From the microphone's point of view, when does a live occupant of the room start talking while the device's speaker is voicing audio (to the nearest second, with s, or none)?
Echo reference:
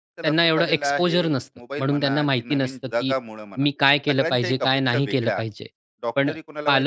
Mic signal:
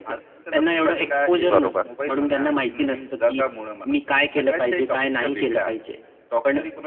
1 s